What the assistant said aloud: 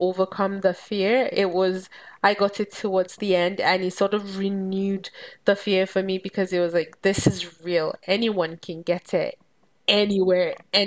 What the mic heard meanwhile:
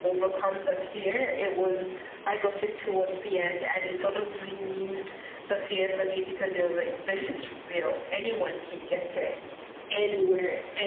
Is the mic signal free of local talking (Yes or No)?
Yes